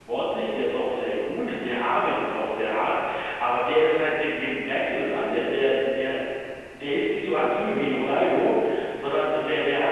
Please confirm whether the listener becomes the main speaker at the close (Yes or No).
No